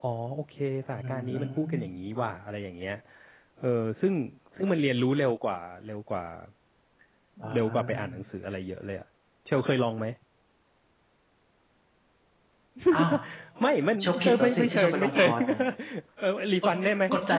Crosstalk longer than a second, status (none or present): present